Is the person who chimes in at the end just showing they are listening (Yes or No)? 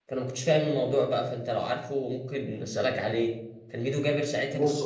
Yes